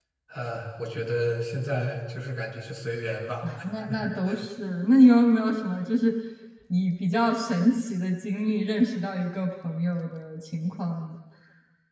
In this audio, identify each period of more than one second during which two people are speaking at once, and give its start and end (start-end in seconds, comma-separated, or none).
none